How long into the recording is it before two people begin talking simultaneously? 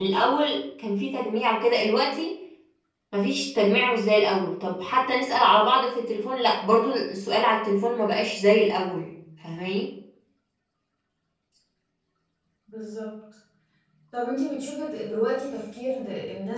none

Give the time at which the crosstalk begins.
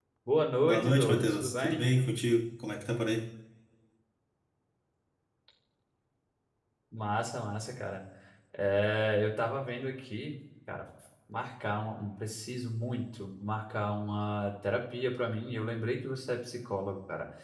0.7 s

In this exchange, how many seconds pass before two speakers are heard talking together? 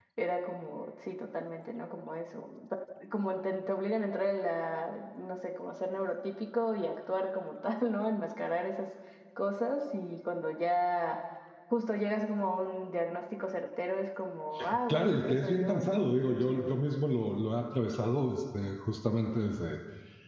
14.9 s

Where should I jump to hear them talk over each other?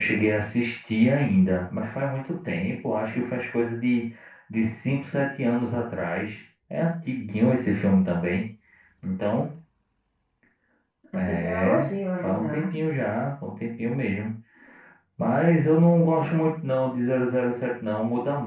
11.1 s

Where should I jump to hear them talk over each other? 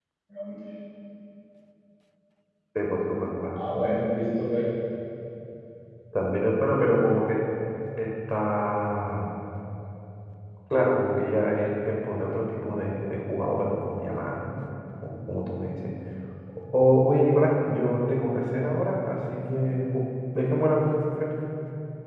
none

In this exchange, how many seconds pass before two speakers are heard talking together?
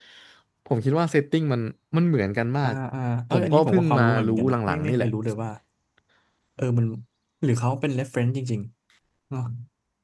3.3 s

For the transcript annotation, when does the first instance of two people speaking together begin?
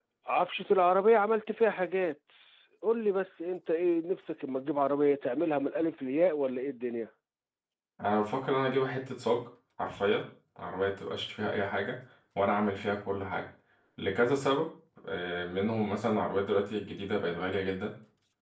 none

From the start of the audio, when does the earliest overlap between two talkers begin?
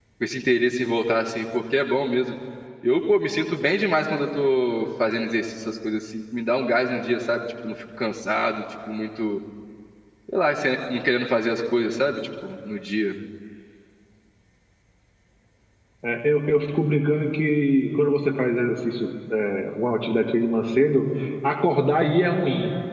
none

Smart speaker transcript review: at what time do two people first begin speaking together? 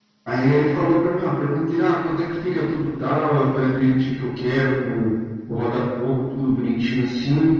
none

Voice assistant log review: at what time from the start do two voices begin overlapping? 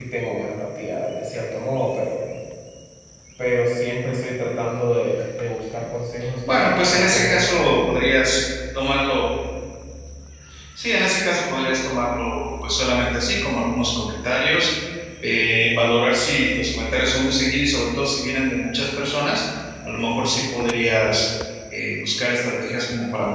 6.4 s

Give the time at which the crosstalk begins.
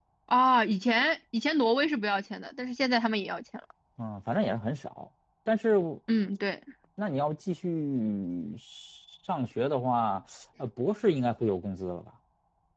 none

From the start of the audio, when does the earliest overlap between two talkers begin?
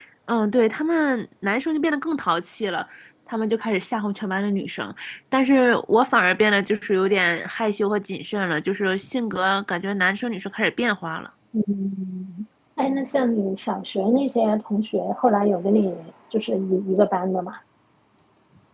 none

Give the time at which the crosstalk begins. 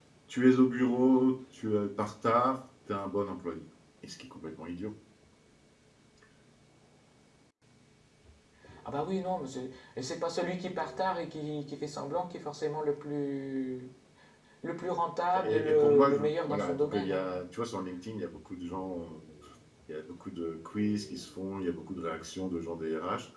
15.4 s

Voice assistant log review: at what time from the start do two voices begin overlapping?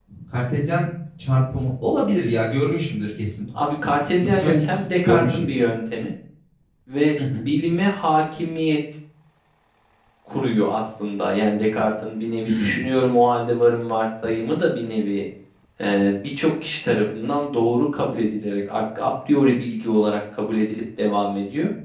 4.2 s

